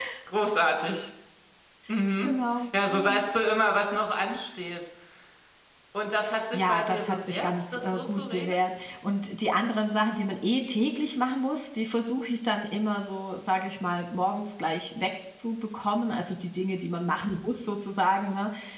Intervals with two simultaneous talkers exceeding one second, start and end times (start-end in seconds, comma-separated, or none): 6.5-8.7